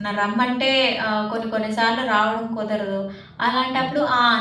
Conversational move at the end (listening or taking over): listening